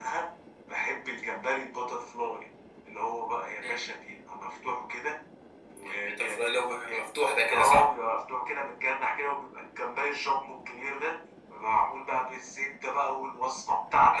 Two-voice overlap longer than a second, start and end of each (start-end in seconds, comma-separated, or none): none